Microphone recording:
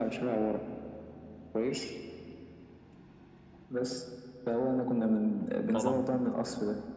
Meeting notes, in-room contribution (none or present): present